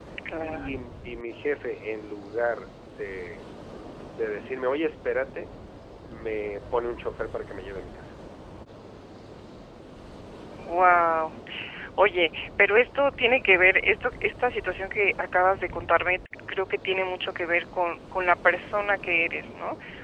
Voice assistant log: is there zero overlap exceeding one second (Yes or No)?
Yes